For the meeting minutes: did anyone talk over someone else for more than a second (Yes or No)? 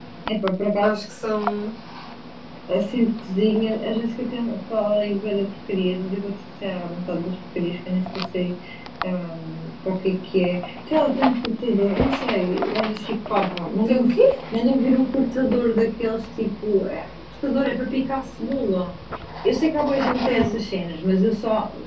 No